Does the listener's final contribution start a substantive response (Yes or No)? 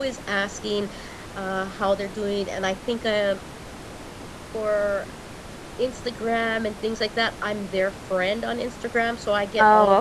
No